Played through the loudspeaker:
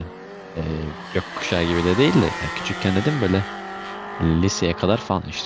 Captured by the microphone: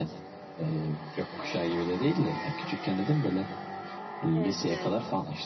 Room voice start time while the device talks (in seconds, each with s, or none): 4.3 s